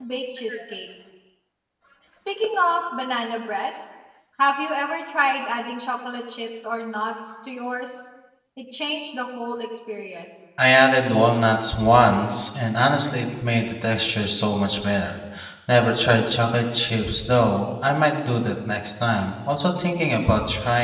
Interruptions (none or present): none